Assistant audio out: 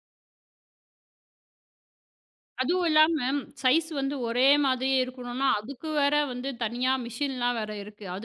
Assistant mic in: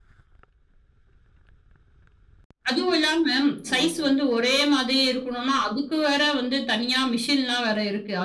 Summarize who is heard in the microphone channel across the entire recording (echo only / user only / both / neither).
both